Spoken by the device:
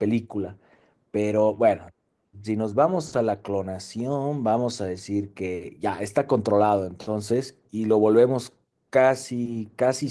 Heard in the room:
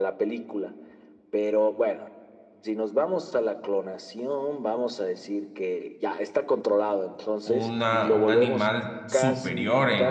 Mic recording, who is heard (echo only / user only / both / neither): both